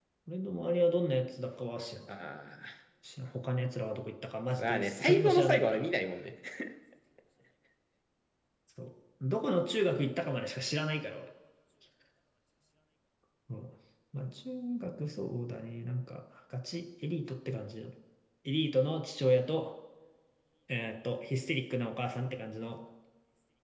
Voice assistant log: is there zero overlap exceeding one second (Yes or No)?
No